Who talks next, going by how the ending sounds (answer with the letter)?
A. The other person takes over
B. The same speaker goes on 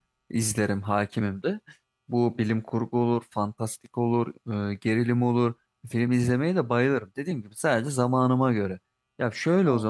B